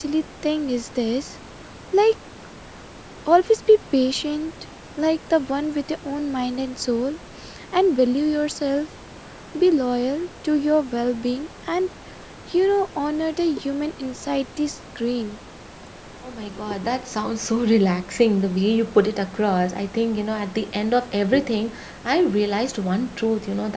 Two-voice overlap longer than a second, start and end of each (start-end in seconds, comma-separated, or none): none